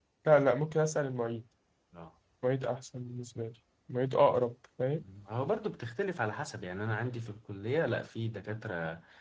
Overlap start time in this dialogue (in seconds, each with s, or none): none